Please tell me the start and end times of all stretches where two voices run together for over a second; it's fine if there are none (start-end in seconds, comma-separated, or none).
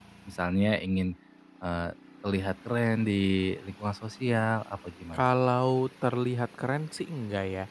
none